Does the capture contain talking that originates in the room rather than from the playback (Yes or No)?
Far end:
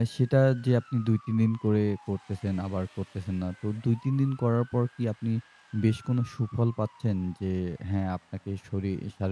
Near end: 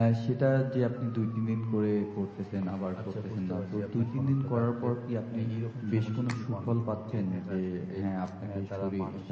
Yes